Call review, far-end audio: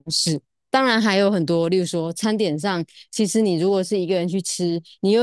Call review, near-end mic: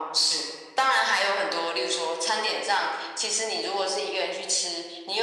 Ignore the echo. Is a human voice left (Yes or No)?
No